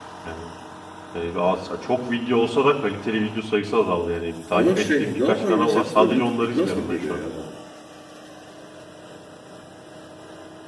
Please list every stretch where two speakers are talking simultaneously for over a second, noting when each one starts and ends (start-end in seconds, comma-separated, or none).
4.5-7.2